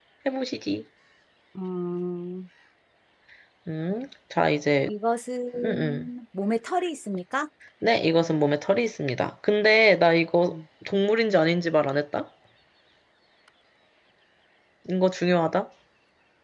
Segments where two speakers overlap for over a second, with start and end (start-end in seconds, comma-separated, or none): none